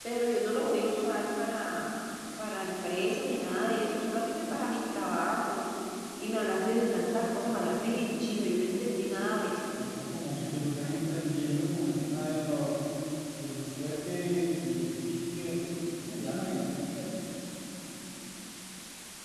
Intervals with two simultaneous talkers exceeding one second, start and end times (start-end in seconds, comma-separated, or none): none